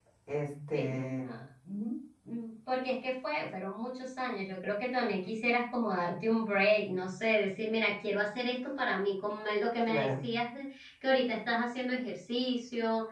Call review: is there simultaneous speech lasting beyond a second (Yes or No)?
No